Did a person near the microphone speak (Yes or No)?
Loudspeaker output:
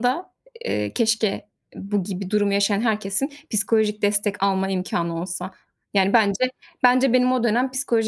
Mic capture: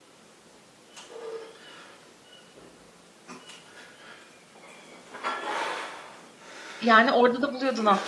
Yes